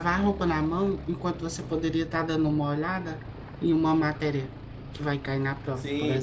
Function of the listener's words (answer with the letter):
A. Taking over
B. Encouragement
A